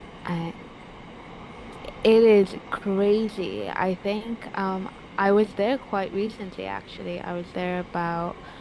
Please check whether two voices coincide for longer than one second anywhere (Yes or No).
No